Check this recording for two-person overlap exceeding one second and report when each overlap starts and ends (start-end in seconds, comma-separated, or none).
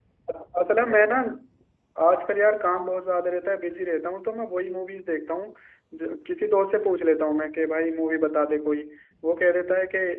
none